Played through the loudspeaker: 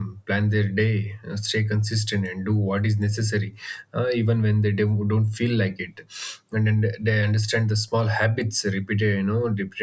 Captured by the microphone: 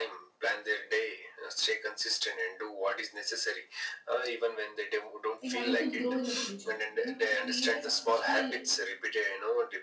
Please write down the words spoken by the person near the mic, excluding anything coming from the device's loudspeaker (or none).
in order to grow in the future you know to create a successful